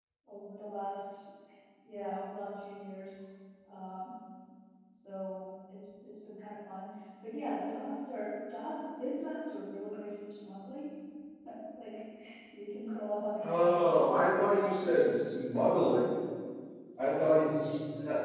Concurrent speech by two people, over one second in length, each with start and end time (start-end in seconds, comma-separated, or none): 13.4-14.8